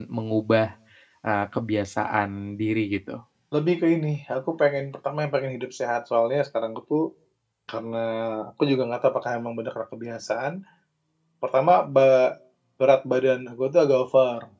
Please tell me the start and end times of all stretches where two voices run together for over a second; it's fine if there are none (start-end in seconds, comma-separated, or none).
none